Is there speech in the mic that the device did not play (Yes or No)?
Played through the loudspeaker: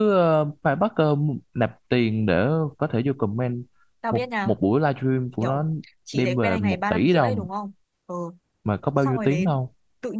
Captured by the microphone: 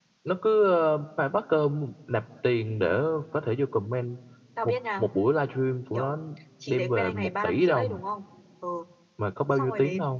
No